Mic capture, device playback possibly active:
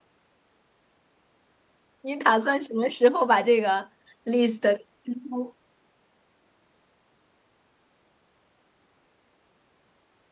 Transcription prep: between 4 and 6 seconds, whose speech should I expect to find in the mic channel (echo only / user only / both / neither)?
user only